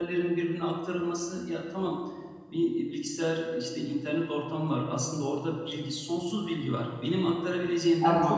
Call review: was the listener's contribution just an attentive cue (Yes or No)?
Yes